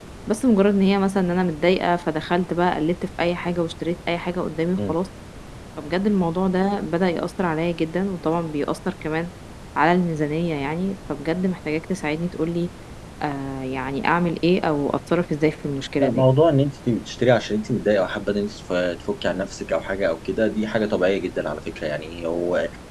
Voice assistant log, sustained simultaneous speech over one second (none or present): none